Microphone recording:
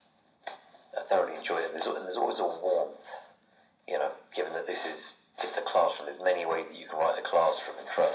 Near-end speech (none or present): none